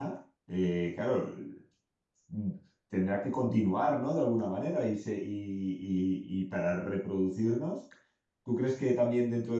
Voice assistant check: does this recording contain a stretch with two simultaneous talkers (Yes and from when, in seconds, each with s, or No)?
No